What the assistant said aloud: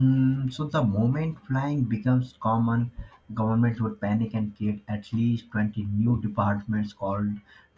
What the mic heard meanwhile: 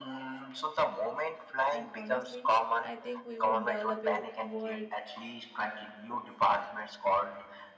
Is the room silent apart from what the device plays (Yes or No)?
No